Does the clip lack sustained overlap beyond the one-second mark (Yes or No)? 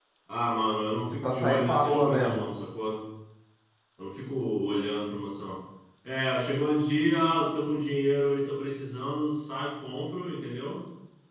No